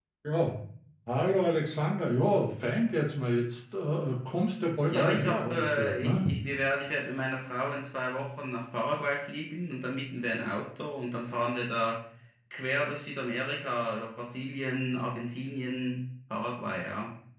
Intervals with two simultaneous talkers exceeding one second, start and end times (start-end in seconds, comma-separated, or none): 4.9-6.2